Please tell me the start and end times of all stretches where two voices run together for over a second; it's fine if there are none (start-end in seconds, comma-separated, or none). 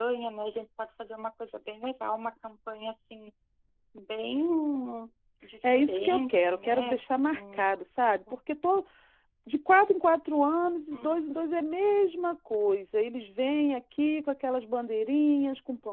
5.7-7.6